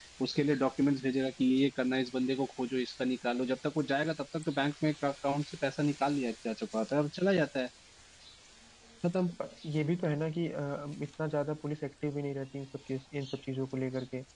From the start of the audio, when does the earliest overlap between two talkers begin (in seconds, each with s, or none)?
none